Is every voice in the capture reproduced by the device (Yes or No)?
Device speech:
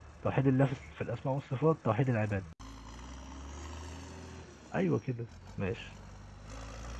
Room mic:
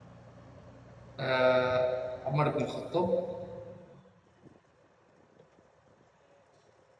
No